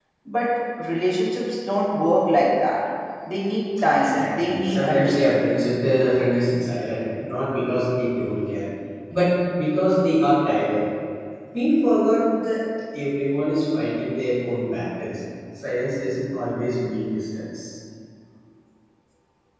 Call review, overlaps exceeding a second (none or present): present